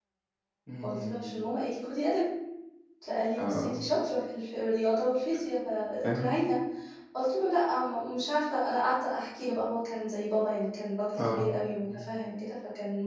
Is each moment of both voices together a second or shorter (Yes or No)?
Yes